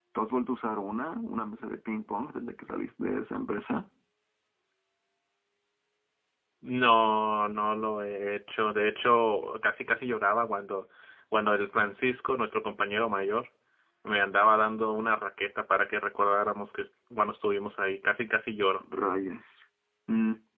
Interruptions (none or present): none